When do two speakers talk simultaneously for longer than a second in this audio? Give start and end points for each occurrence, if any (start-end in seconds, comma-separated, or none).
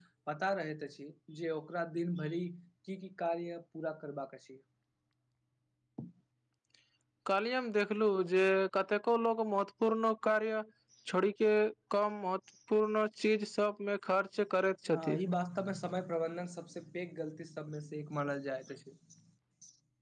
none